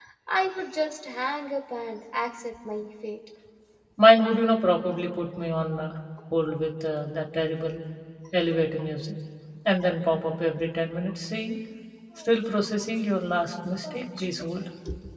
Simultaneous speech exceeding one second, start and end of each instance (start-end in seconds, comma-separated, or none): none